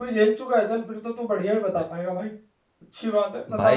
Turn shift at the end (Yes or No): Yes